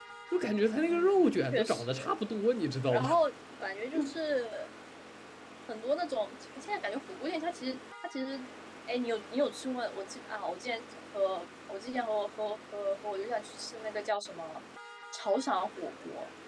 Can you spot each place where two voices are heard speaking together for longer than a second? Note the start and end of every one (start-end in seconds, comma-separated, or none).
0.9-2.1